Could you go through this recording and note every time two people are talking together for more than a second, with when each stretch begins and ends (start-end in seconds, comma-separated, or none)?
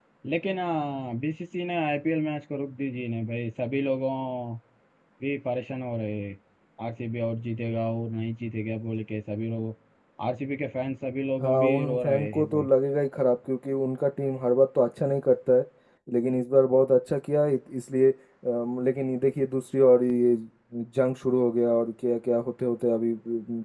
11.4-12.7